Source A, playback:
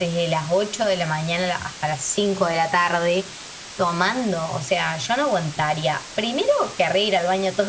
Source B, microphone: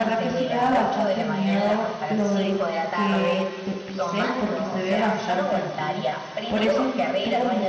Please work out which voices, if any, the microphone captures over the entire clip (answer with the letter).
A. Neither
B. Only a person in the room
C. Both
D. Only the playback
C